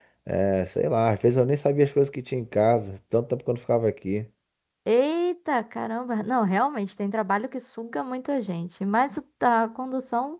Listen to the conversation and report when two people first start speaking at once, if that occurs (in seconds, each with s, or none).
none